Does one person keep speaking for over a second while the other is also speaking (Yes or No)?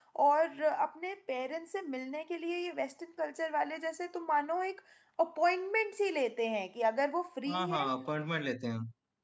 No